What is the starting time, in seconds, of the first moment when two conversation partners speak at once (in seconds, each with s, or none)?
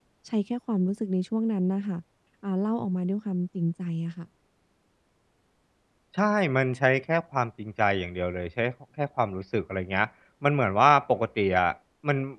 none